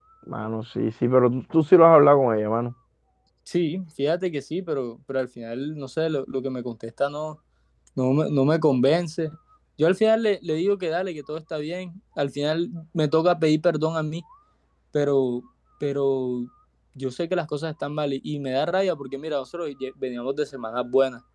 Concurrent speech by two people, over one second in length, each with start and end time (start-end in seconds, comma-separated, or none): none